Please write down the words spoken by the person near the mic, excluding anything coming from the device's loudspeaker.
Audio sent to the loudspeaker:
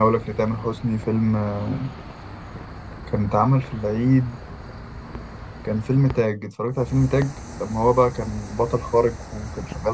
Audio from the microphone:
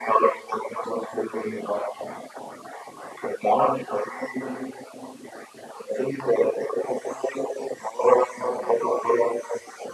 none

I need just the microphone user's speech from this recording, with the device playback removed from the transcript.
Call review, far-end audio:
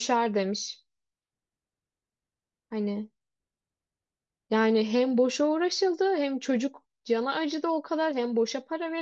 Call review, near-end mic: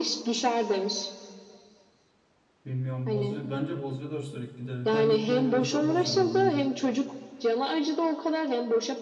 Bilmiyorum. Bozuyor. Bence bozuyorlar sürekli giderek. Her gittiğinde biraz daha bozuyorlar bence.

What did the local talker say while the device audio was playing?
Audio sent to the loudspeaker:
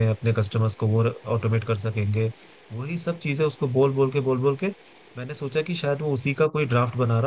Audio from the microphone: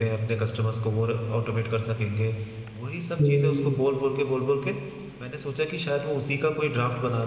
हम्म,

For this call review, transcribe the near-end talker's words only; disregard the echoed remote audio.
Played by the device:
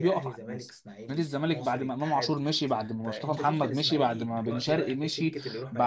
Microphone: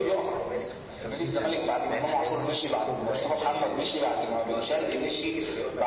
50 سنه فاهم اللي هو مثلا في اطفال دلوقتي بيشجعوه

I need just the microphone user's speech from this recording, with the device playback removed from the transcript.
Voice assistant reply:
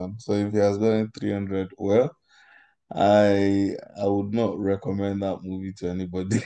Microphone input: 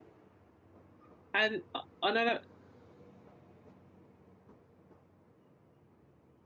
And another

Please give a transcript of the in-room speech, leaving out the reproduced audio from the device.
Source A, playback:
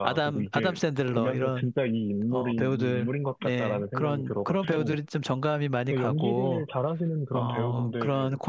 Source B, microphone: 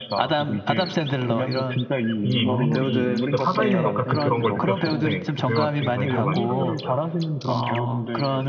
이 인물이 진짜 살아있는 것 같은 그런 걸 느꼈을 때 그 배우한테 되게 관심이 많이 가더라고요.

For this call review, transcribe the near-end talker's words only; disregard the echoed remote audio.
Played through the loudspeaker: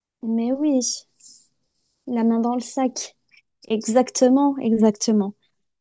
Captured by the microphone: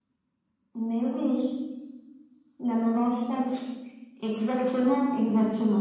none

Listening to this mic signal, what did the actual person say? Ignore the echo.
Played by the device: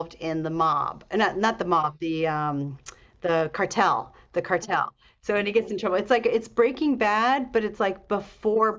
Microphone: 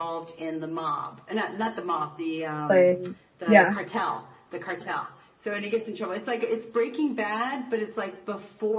Playing. Yeah.

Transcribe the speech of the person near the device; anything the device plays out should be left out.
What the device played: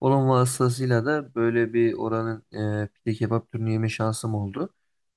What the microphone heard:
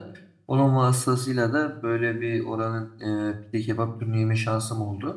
none

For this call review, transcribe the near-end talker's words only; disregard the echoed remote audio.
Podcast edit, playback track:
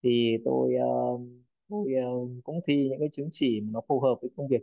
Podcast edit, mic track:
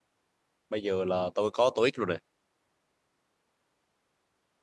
bây giờ là tôi có TOEIC rồi này

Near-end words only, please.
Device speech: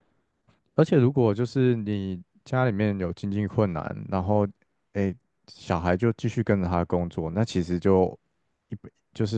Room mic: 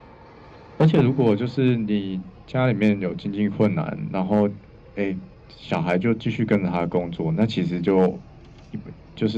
none

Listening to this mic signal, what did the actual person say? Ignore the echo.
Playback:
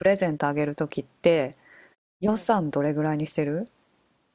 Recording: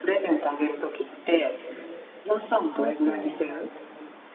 あ、OK なんだ。

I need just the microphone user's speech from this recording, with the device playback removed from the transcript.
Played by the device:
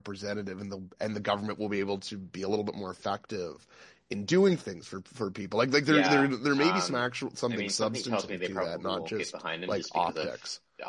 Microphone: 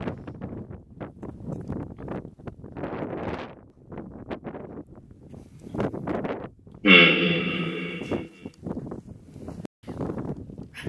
Mm,

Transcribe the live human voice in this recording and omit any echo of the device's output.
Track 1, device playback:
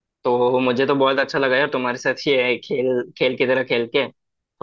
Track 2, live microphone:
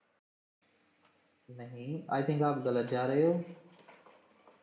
नहीं आई थिंक आप गलत जा रहे हो

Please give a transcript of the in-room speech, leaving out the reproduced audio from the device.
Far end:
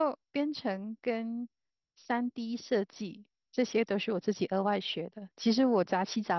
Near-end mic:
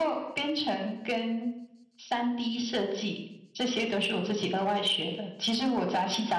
none

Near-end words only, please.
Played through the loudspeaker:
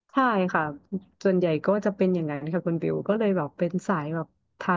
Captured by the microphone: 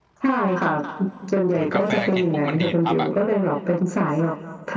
เหมือนกาแฟกินปุ๊บมันดีดปั๊บอ่ะ

